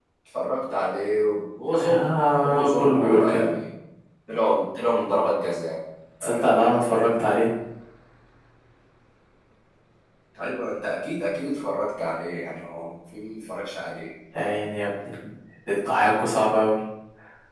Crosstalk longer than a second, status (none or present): present